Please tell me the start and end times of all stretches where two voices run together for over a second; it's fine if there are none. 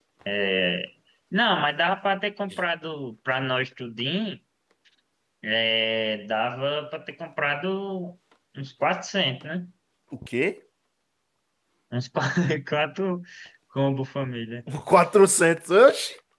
none

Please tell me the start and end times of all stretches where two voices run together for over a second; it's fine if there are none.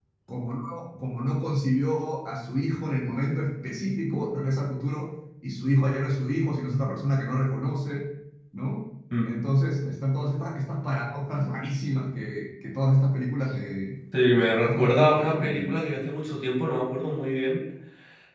14.4-15.7

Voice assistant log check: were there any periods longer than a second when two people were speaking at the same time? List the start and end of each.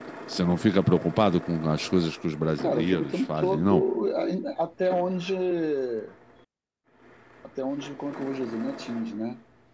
2.6-3.8

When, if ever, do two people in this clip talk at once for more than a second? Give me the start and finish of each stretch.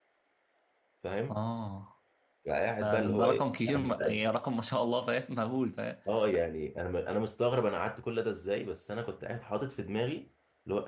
2.8-4.3

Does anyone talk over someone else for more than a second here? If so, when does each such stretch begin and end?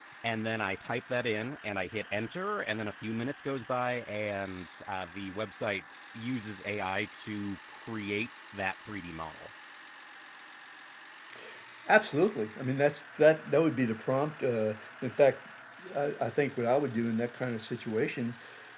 none

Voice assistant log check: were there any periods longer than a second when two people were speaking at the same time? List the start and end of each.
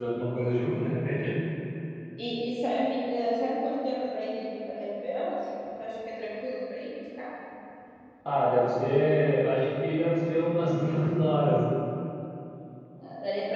none

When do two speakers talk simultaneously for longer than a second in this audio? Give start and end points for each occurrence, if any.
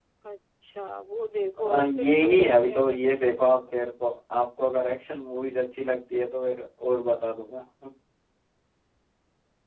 1.6-3.4

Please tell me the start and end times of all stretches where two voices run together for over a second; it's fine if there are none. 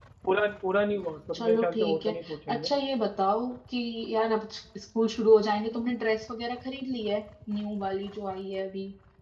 1.4-2.7

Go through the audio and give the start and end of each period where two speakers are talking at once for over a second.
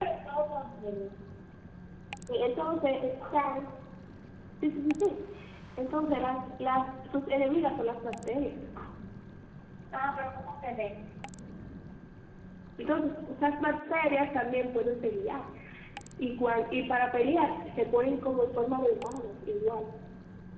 none

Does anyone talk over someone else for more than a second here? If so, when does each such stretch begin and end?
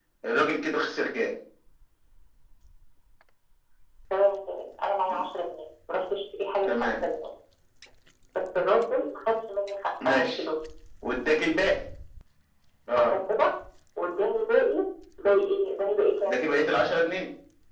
none

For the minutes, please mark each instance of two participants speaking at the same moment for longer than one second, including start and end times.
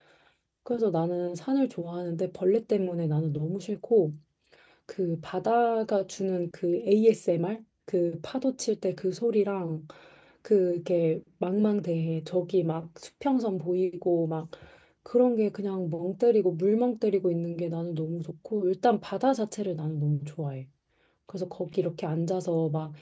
none

